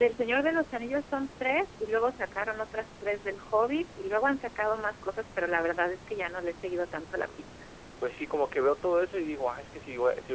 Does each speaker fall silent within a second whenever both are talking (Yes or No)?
Yes